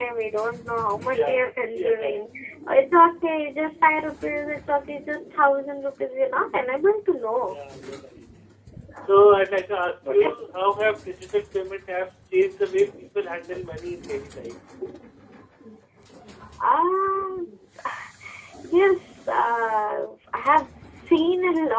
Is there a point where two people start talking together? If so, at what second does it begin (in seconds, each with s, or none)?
1.0 s